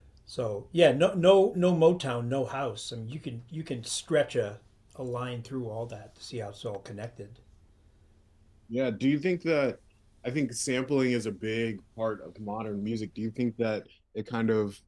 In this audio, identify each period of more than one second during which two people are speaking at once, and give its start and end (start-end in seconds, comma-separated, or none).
none